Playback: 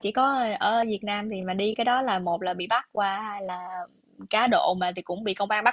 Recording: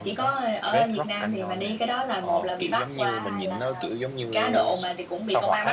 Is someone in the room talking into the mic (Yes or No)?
Yes